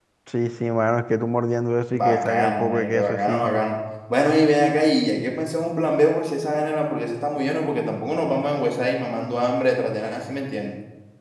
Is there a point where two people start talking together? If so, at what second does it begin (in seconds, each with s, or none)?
1.9 s